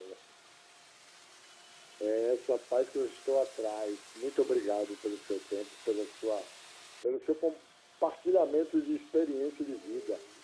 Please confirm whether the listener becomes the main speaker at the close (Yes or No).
Yes